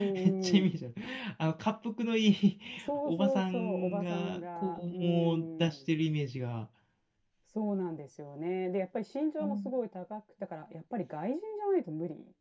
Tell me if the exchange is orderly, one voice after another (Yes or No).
No